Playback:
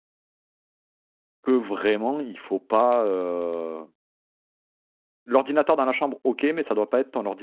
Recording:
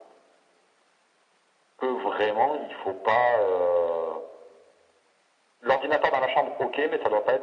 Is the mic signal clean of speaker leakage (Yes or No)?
No